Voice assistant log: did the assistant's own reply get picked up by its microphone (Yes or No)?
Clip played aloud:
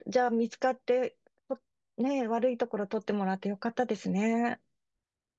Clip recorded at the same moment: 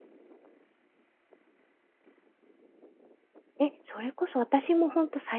No